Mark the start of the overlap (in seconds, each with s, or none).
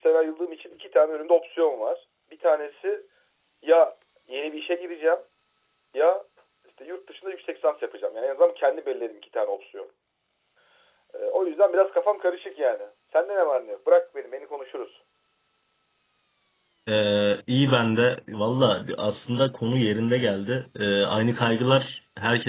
none